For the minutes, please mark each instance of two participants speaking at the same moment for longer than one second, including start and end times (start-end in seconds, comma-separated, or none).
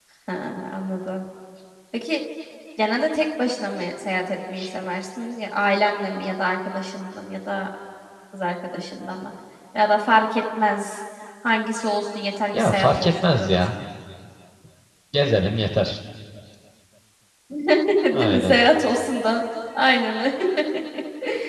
12.5-13.7